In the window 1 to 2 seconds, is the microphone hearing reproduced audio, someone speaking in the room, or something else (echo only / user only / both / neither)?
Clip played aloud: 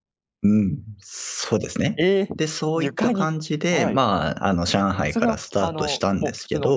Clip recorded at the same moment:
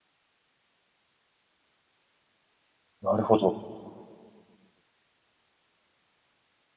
neither